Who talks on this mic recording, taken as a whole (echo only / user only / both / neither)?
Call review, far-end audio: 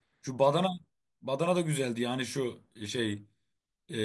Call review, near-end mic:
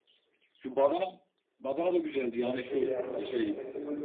both